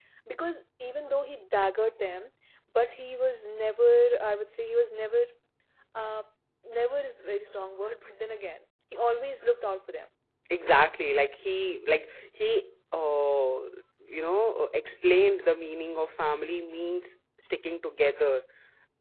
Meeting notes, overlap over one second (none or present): none